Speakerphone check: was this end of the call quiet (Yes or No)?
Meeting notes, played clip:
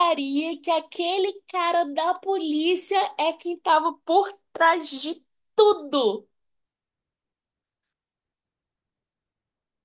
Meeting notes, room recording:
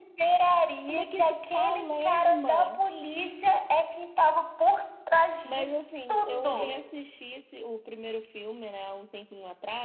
No